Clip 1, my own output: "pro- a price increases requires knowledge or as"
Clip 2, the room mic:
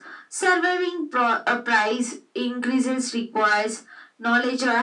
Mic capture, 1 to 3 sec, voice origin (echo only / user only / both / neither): echo only